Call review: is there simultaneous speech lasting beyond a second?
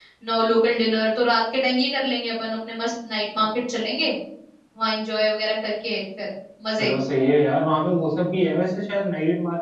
No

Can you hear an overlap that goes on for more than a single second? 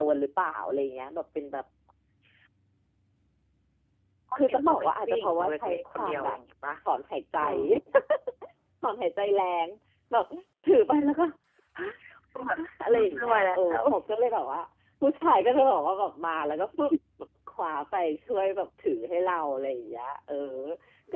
Yes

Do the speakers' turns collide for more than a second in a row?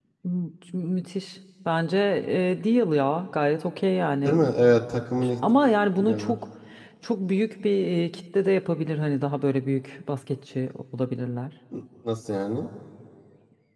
No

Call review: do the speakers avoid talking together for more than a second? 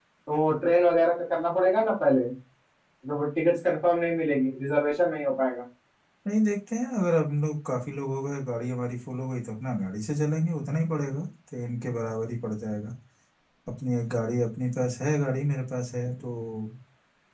Yes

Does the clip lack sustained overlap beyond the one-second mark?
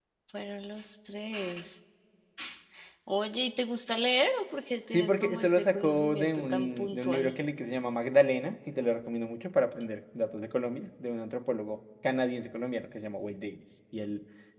No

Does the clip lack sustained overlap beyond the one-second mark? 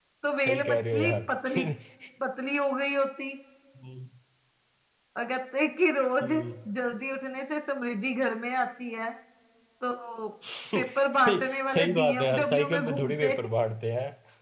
No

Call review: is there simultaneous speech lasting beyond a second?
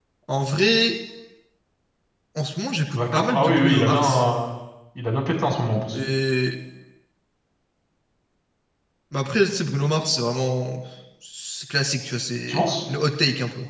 Yes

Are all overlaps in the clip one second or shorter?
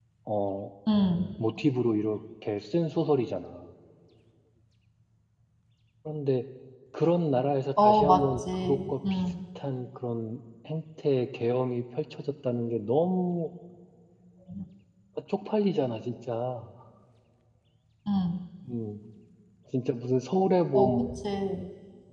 No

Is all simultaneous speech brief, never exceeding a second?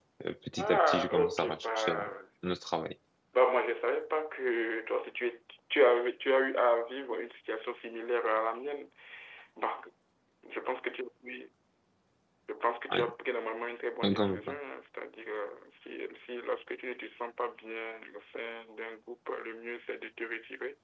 No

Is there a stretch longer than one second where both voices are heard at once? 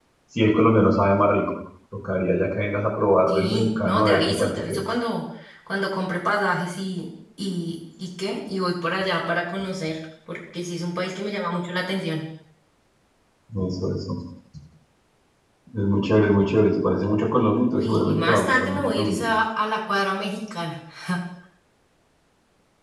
Yes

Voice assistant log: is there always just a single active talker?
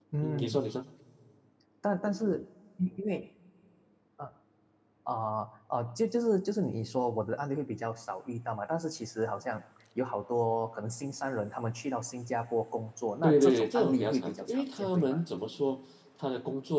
No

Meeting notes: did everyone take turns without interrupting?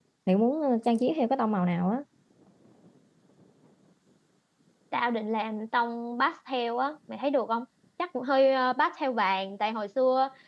Yes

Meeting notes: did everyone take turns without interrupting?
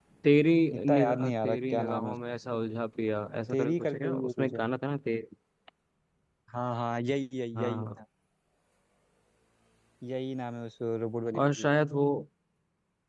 No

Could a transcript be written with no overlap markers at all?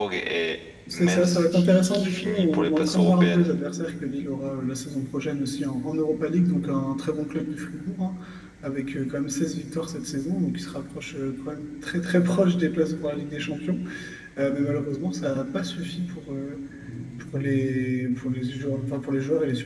No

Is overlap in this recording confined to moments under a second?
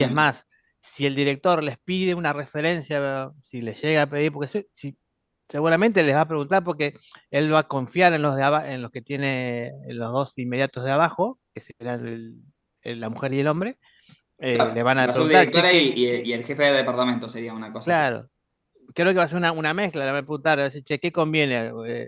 No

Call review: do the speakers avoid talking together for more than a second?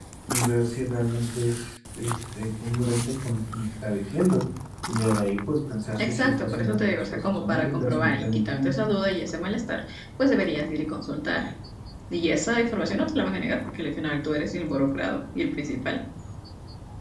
No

